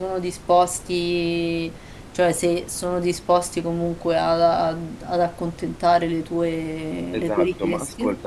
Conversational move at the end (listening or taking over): taking over